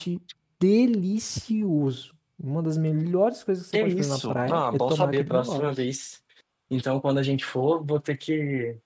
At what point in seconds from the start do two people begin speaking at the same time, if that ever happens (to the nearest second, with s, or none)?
4 s